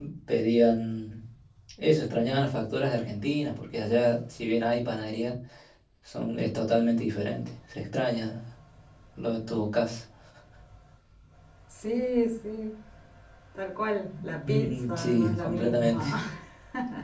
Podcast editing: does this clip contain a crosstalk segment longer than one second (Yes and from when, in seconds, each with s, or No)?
Yes, from 14.4 s